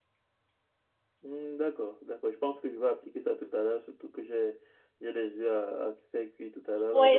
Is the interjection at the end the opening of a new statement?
Yes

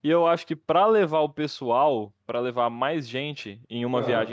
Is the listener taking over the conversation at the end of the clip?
No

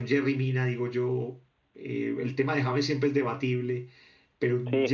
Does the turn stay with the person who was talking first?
Yes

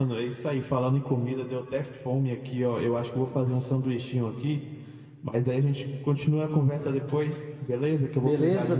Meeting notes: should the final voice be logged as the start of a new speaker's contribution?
Yes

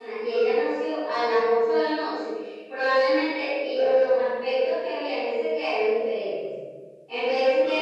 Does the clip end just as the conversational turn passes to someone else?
No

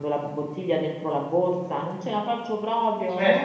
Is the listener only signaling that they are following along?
No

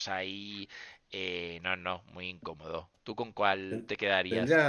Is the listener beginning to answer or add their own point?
Yes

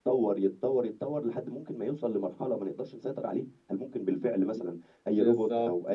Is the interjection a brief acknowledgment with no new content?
No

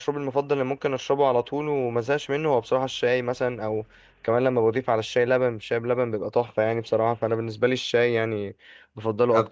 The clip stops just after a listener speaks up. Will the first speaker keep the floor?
No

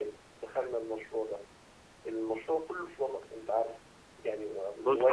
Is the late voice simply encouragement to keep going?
No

